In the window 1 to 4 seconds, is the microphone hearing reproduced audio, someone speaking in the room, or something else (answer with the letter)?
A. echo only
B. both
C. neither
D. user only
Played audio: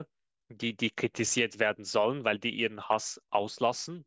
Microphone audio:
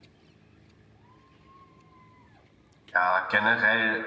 D